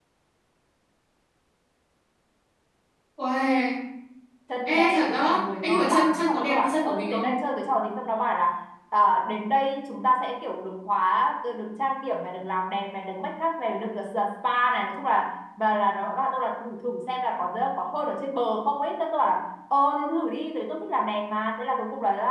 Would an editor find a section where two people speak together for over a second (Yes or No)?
Yes